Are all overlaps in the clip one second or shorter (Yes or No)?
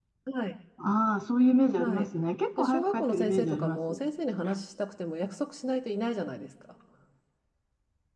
No